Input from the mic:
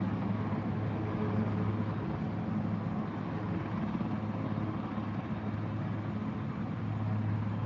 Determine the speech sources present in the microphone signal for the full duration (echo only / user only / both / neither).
neither